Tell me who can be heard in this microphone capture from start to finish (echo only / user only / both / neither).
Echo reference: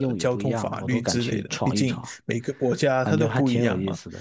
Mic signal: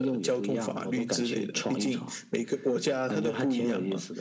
echo only